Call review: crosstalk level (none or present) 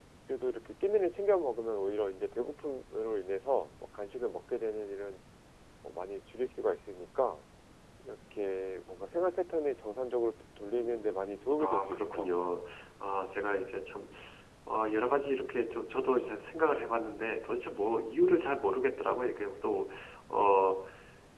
present